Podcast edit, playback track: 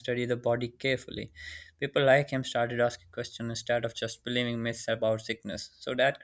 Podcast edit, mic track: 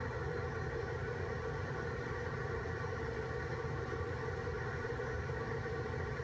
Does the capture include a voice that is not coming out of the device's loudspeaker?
No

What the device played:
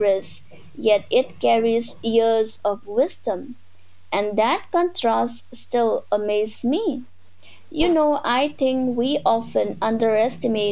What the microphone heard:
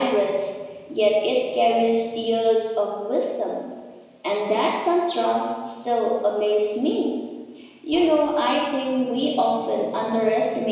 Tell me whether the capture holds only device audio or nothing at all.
Yes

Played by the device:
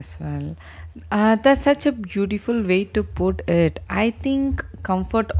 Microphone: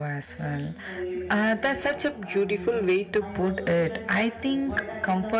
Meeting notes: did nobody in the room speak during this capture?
No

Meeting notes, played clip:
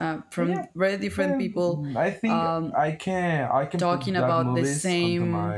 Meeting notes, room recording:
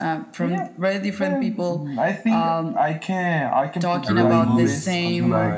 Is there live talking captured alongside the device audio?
Yes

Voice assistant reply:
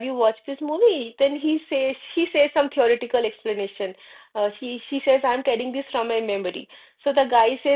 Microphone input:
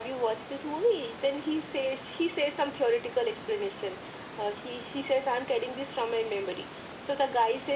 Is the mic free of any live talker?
Yes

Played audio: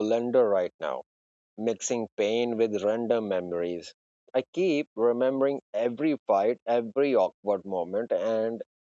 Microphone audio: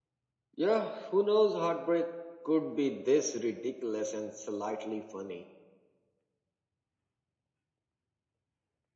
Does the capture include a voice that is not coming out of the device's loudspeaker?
Yes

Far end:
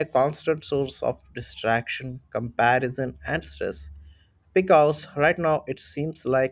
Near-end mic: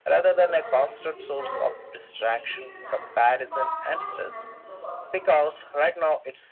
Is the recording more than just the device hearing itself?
Yes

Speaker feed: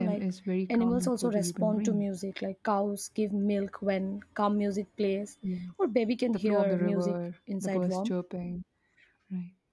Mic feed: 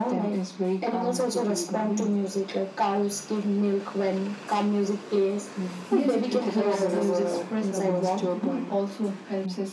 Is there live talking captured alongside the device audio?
Yes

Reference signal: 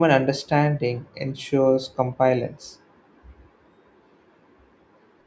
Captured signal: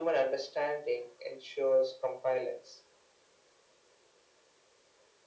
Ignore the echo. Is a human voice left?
No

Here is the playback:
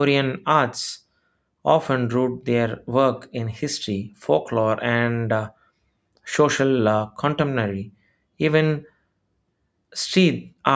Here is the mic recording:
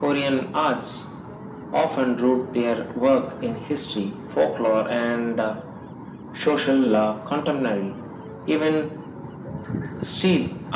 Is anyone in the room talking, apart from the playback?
No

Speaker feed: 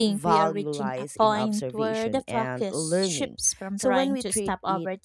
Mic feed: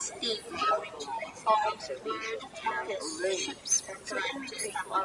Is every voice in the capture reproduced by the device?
Yes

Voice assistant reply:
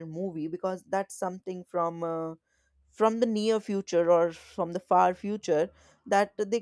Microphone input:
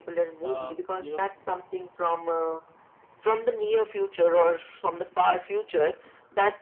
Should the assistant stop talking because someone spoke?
Yes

